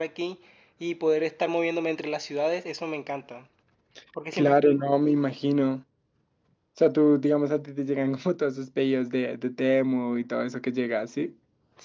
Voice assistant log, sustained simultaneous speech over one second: none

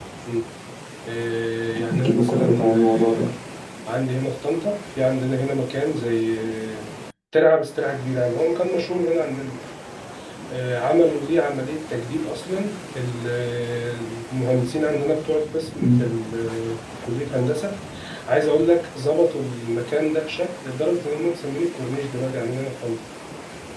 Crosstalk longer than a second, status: present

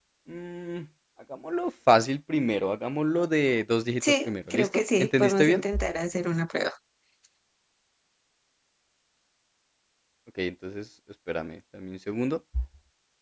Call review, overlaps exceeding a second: present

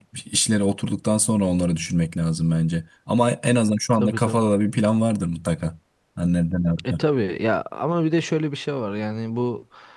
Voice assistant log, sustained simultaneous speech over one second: none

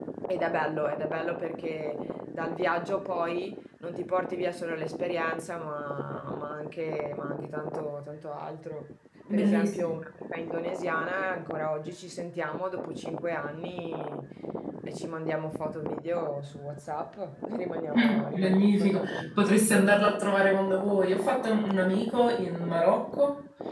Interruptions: present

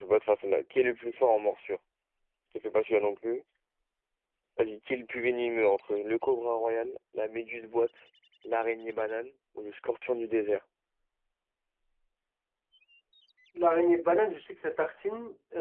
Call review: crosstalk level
none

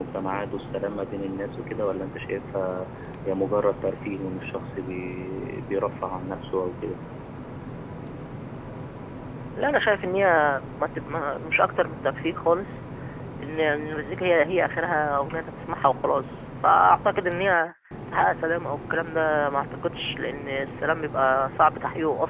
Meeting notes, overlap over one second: none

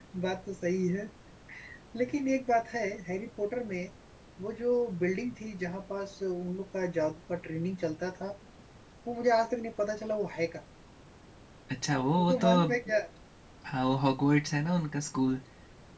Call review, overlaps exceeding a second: none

